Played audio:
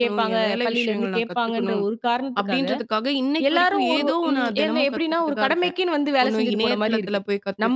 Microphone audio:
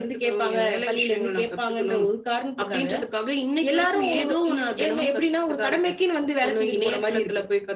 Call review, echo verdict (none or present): present